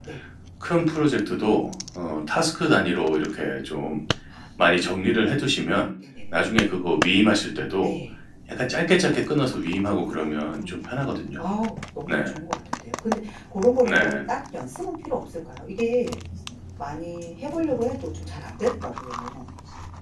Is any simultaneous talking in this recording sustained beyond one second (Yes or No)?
No